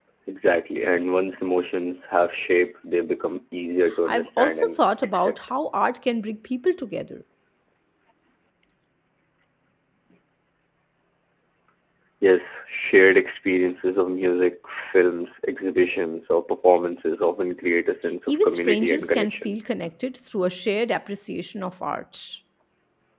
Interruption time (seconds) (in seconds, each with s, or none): 4.0 s